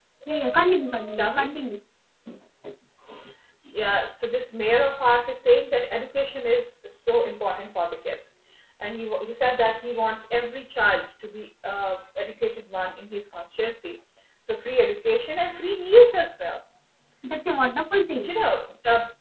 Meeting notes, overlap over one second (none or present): none